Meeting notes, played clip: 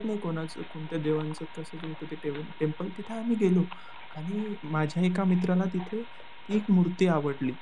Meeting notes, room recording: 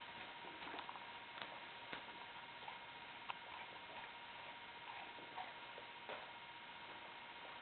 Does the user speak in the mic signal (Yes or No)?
No